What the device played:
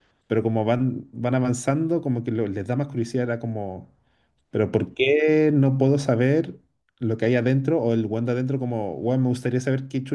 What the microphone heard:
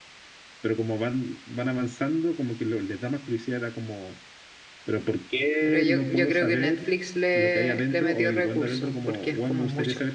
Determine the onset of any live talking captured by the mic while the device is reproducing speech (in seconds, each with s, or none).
5.6 s